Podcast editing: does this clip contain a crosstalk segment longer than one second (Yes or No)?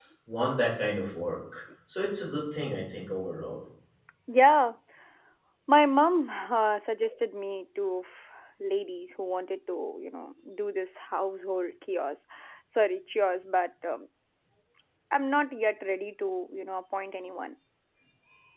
No